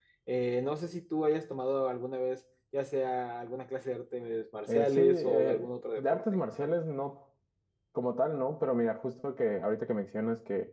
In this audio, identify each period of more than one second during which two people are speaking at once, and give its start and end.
4.7-6.2

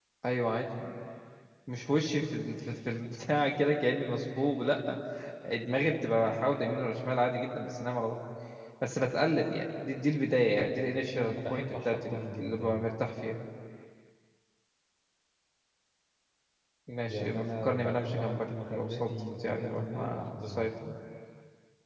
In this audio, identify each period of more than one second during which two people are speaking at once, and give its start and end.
11.2-12.8, 17.1-20.7

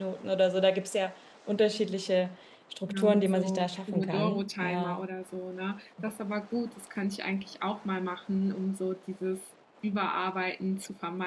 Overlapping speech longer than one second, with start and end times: 2.9-5.0

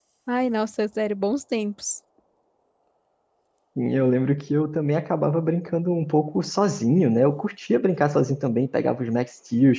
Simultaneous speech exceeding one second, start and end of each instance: none

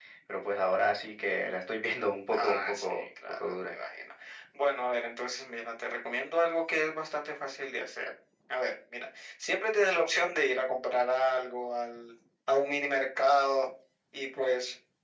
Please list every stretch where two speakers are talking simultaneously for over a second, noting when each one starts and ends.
2.3-3.7

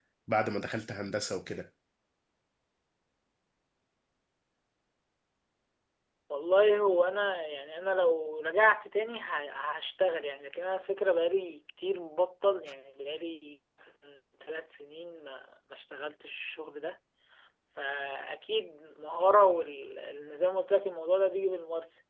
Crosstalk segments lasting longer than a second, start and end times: none

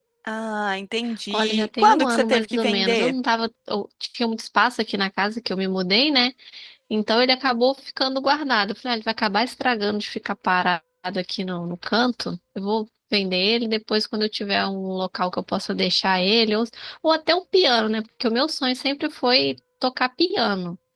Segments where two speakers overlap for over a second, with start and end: 1.3-3.1

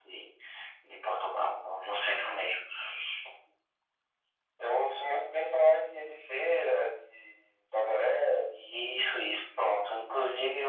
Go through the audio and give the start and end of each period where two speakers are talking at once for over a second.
none

